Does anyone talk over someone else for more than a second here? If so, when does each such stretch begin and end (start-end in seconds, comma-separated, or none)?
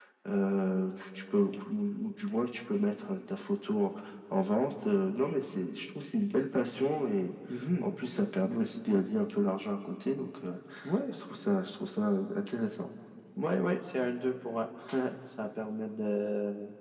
none